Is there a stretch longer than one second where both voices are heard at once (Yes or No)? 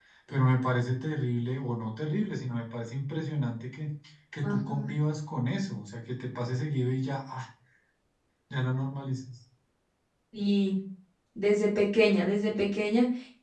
No